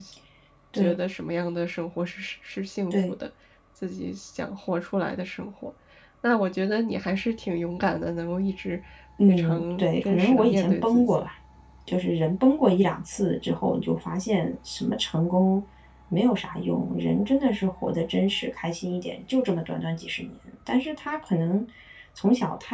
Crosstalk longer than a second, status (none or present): present